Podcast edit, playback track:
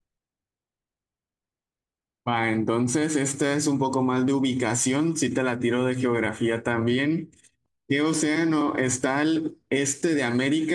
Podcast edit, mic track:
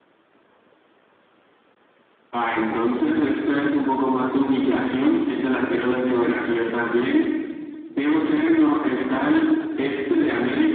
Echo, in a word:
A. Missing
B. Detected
B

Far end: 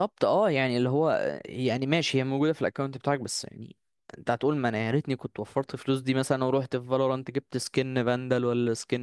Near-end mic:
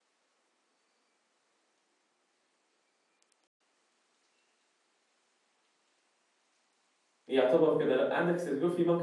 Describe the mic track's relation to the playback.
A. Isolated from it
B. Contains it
A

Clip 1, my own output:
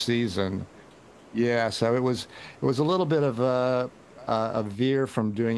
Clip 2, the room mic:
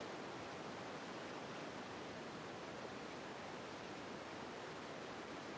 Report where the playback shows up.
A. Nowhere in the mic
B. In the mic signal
A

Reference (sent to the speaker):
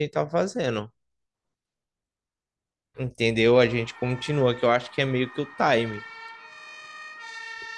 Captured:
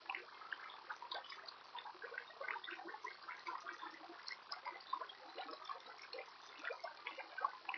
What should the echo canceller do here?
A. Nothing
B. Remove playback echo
A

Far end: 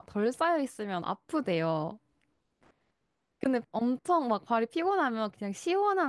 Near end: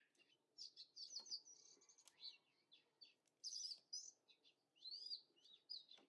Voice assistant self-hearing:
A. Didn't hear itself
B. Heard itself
A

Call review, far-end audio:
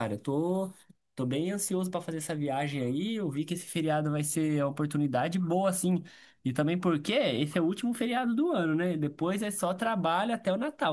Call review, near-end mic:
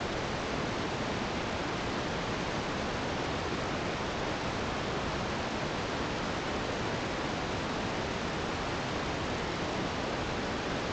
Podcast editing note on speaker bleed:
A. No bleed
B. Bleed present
A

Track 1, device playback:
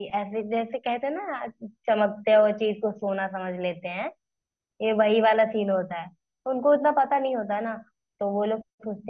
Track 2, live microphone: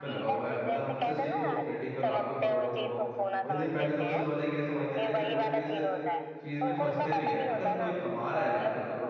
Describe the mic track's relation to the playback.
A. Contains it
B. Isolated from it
A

